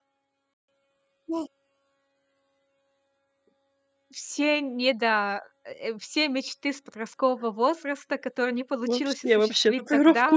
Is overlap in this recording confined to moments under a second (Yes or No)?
No